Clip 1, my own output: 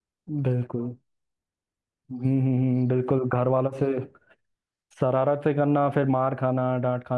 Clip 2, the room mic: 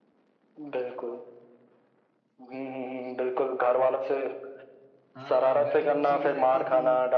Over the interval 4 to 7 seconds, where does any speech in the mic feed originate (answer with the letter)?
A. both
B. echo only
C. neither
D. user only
A